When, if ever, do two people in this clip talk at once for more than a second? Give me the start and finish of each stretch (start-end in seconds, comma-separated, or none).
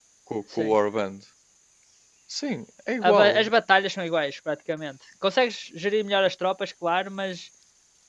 none